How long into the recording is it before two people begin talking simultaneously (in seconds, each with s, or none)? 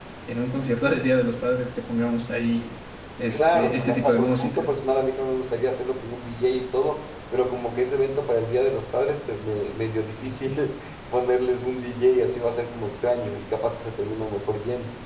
3.3 s